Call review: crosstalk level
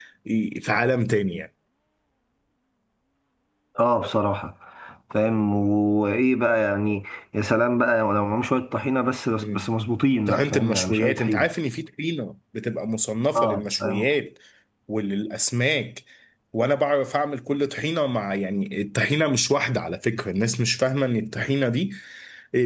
present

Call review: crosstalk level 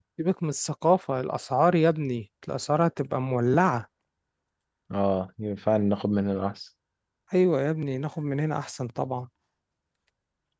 none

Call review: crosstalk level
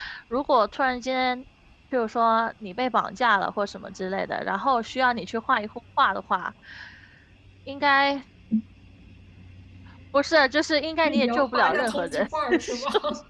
present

